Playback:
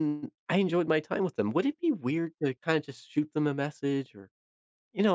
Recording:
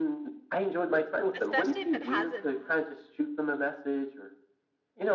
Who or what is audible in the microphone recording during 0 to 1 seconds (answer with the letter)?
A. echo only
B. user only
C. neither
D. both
A